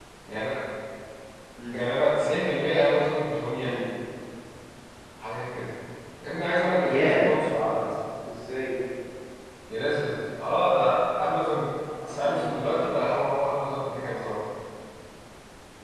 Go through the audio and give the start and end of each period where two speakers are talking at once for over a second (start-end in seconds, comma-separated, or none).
none